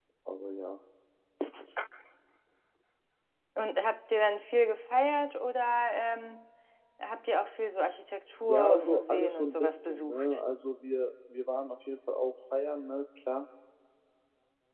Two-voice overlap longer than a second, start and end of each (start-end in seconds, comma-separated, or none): 8.5-10.2